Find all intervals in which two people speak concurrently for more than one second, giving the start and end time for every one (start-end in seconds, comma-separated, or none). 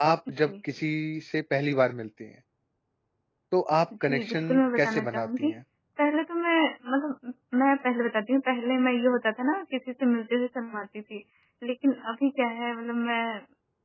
4.0-5.5